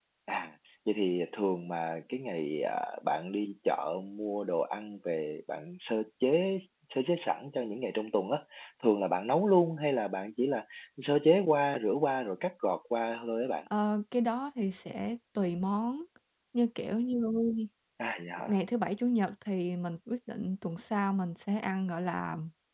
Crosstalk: none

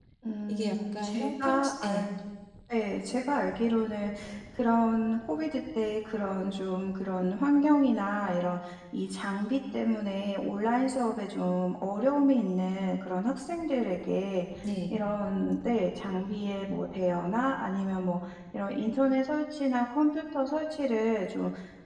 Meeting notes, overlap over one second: present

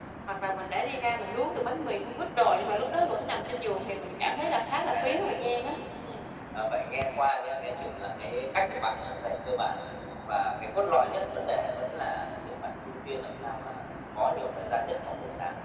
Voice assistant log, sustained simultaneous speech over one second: none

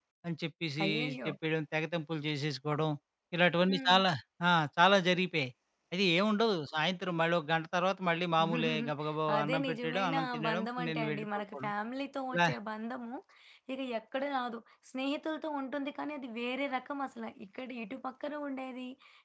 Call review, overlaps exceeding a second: present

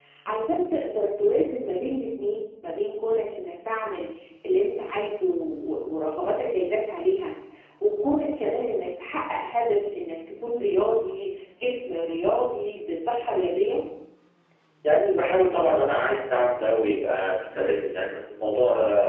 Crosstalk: none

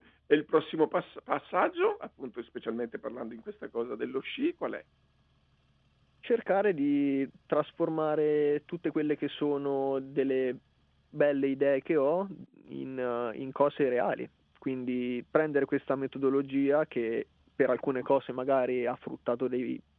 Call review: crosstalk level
none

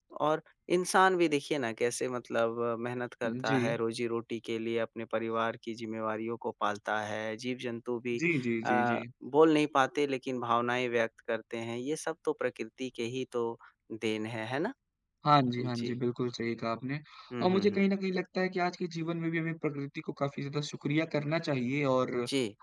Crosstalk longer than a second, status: none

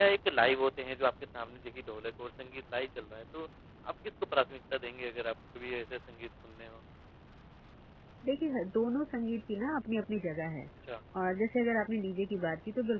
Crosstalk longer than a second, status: none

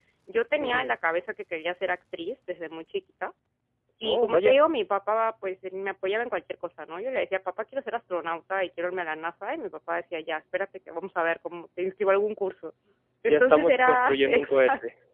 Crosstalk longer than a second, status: present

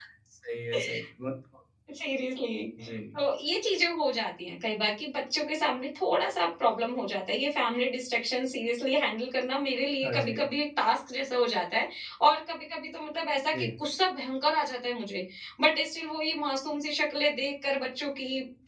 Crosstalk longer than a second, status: none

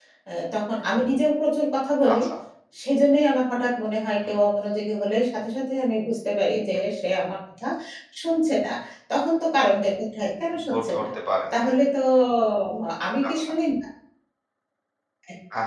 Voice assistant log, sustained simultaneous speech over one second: none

